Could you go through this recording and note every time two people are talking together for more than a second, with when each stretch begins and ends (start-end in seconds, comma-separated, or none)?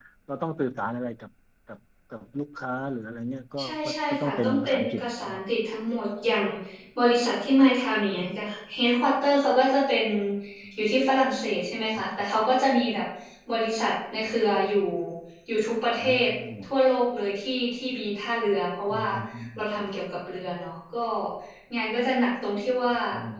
3.6-5.4